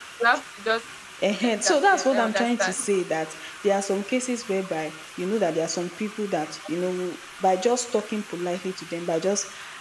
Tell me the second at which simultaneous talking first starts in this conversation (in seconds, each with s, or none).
1.2 s